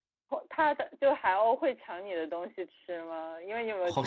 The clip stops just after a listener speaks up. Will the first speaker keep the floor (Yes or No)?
No